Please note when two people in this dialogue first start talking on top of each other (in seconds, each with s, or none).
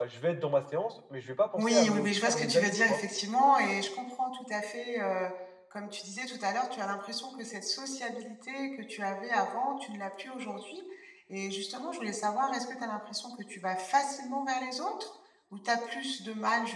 1.6 s